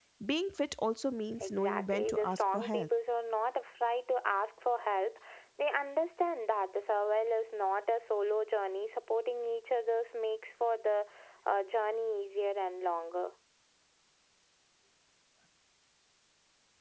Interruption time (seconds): 1 s

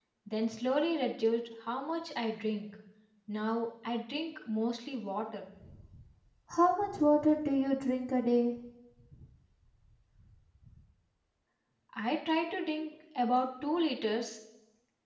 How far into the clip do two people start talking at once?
none

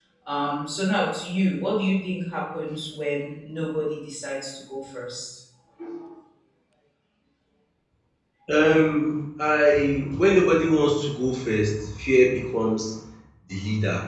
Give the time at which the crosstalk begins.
none

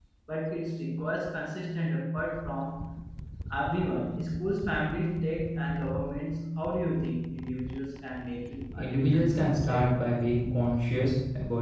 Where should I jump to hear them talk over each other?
9 s

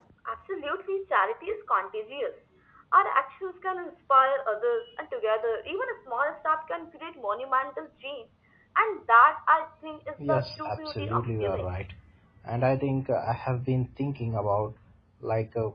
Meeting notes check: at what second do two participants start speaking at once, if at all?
10 s

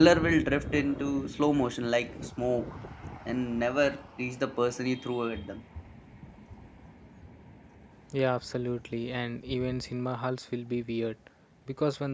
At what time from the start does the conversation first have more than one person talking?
none

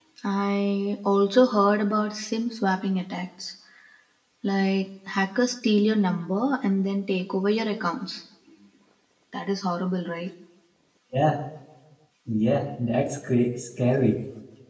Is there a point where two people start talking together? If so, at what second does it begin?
none

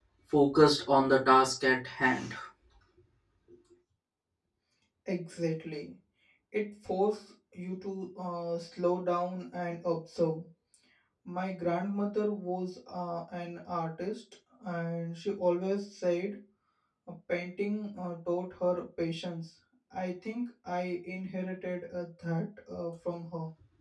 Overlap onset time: none

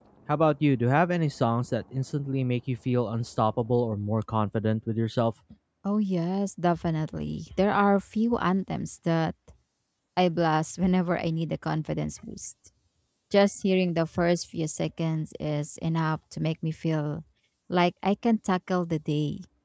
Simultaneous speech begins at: none

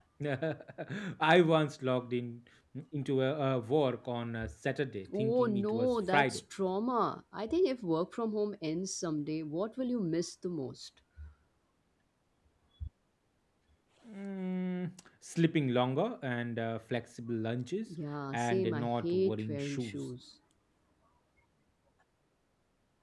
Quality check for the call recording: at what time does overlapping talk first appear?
5 s

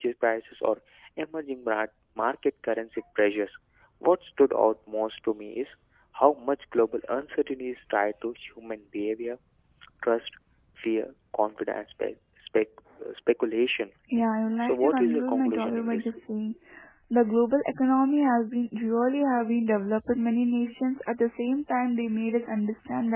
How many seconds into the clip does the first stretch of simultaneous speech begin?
15 s

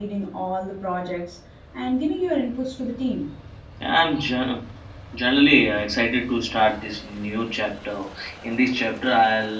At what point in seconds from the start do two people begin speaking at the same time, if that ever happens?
none

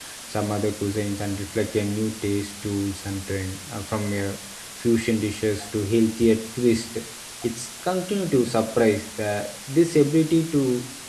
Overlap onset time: none

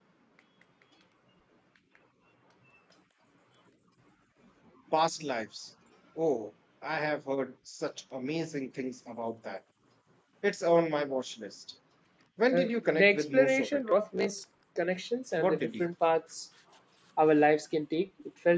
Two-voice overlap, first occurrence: 13 s

